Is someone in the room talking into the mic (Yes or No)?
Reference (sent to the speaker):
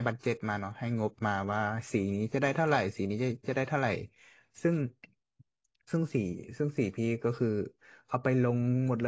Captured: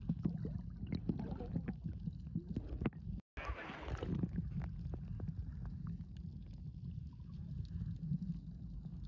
No